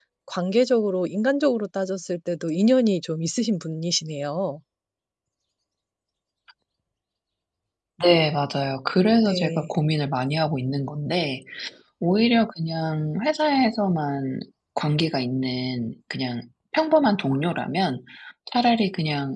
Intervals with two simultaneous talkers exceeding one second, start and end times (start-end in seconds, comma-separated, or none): none